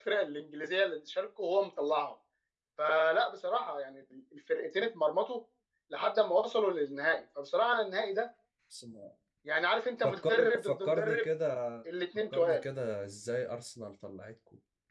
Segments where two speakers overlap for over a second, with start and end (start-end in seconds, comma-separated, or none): 10.0-11.2